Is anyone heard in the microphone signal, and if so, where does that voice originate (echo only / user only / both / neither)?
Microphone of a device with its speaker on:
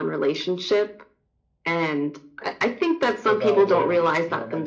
both